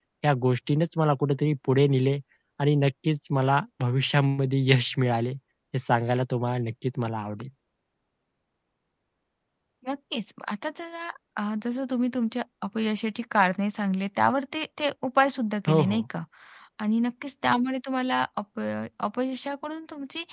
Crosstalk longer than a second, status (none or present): none